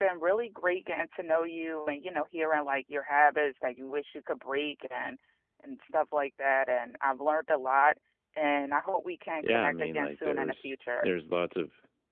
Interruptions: present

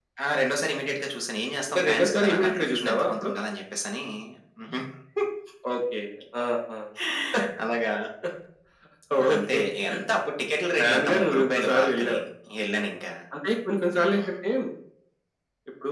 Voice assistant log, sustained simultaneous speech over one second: present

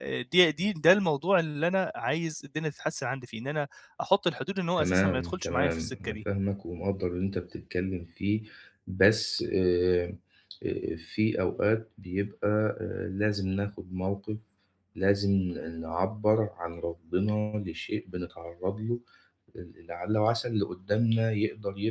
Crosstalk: present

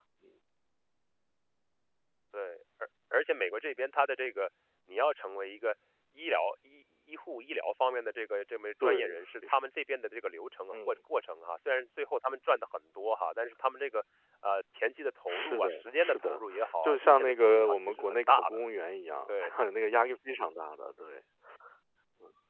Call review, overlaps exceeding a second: present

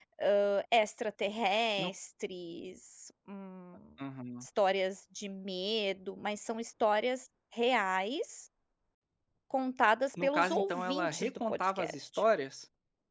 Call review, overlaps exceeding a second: present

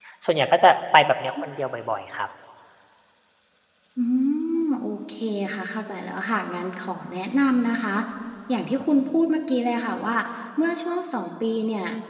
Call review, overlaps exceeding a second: none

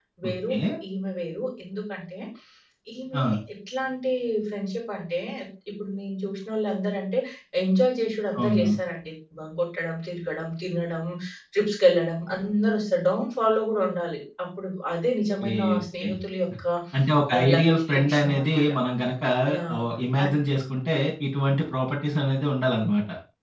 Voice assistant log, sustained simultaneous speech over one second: present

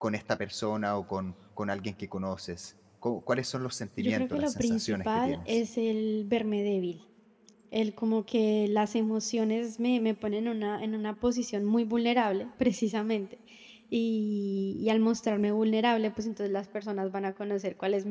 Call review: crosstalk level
present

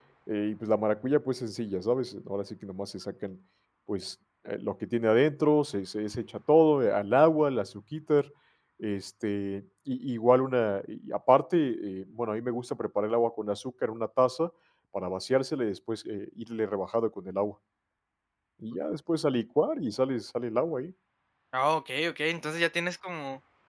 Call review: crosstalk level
none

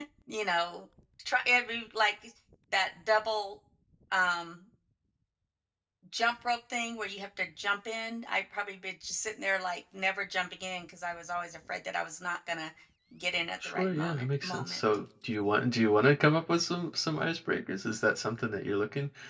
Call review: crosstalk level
present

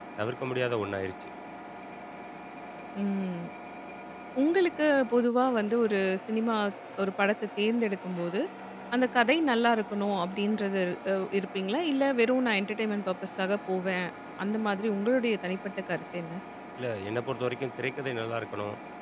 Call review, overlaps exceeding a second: none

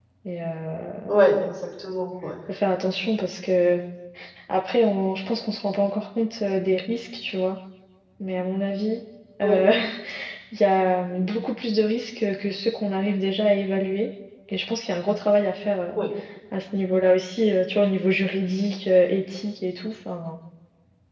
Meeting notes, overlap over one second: none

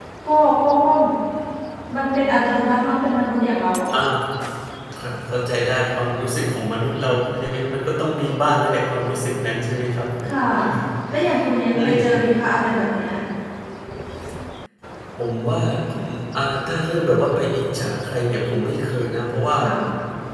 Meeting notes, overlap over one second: none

